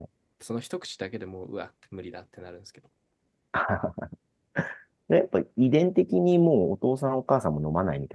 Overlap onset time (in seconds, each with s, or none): none